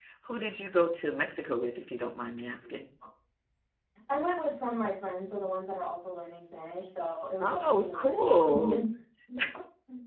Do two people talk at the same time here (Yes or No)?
Yes